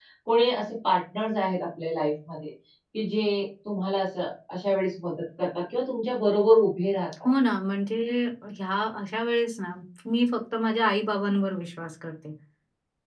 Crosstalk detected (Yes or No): No